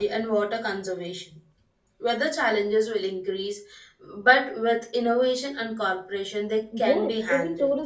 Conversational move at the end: taking over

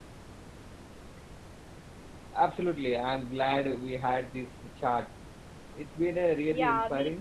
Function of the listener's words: taking over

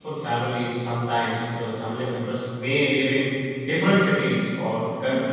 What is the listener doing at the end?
listening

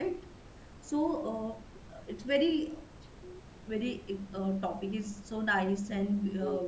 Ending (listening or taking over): taking over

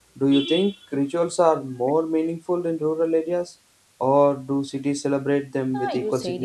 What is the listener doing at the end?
taking over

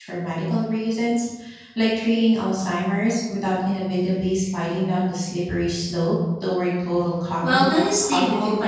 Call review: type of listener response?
taking over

